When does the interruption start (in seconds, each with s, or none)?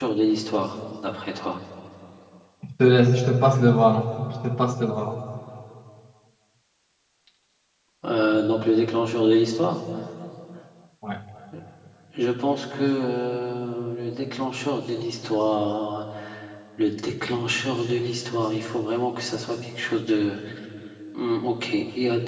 none